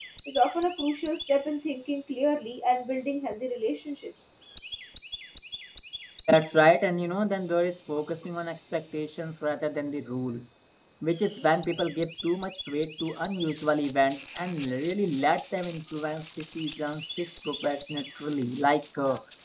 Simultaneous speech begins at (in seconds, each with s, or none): none